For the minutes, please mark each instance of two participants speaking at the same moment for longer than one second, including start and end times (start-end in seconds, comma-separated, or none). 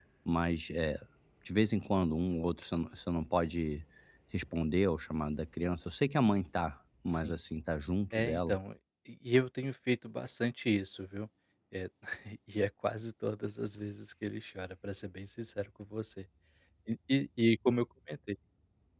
none